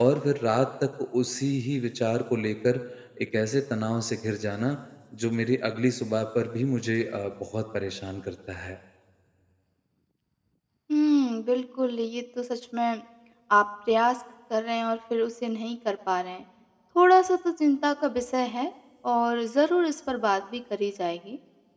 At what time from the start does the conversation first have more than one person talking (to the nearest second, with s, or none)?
none